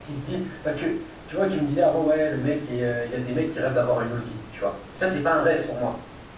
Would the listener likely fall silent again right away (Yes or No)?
Yes